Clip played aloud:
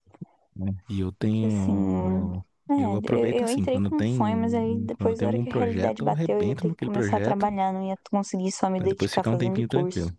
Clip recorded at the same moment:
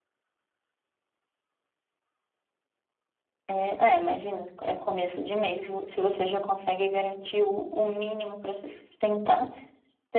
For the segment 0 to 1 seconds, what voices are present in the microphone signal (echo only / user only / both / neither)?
neither